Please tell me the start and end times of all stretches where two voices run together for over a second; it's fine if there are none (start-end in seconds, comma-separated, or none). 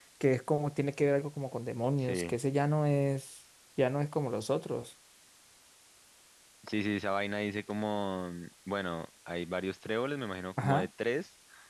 none